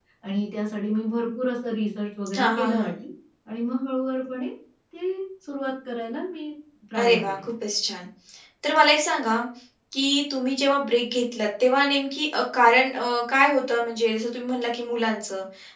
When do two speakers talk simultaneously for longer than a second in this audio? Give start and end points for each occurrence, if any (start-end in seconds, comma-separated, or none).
none